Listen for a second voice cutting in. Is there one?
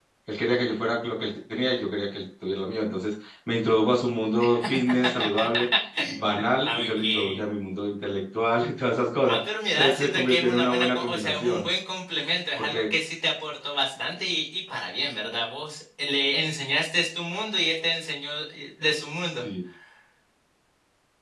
Yes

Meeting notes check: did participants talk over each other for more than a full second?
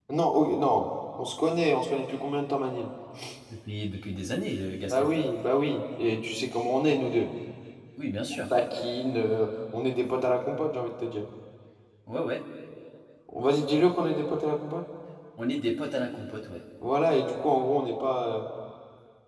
No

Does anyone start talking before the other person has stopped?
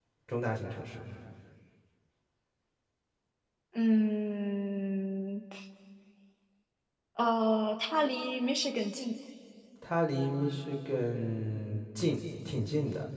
No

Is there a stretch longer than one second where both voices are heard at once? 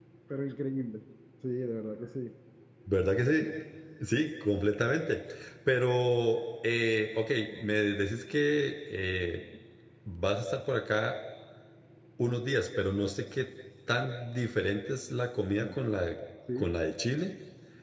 No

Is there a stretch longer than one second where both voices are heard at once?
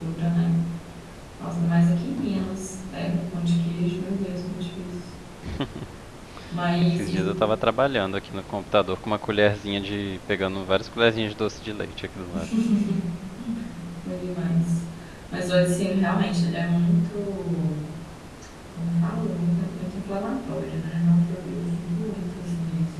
No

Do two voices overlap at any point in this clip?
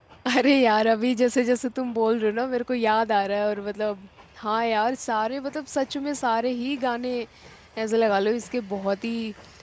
No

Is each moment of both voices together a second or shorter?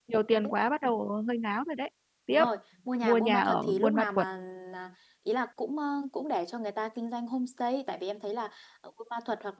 No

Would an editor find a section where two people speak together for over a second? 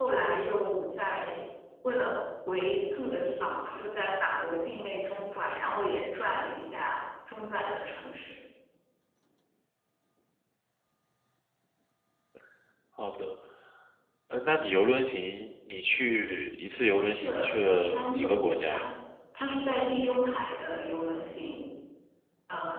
Yes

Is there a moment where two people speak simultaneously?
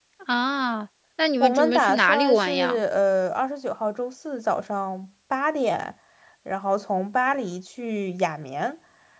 Yes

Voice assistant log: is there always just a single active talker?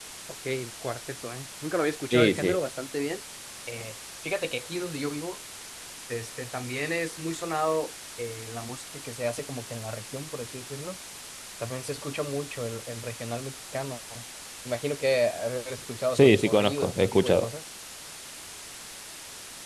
No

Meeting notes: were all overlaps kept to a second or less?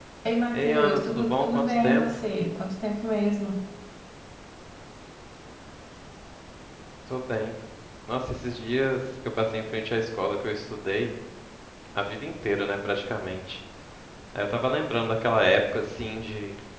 No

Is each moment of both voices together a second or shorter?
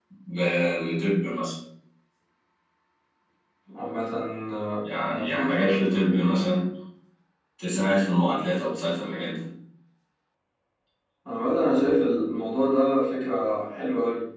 No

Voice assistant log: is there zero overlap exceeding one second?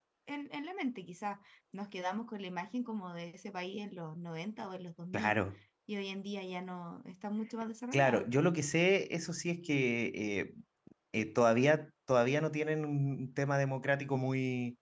Yes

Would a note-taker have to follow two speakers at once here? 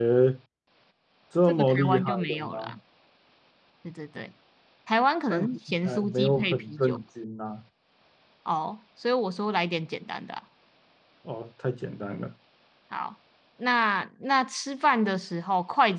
Yes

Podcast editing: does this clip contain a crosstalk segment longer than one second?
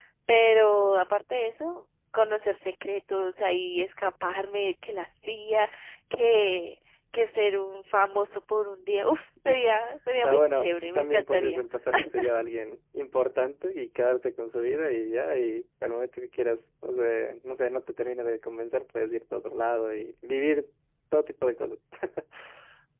Yes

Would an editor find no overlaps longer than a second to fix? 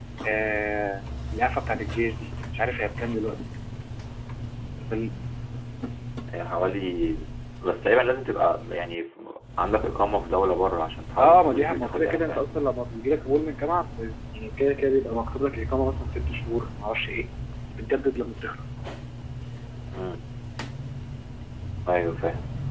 No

